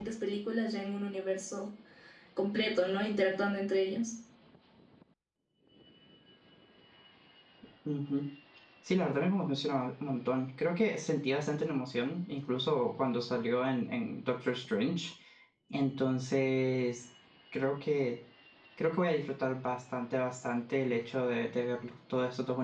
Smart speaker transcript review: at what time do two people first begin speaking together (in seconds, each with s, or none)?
none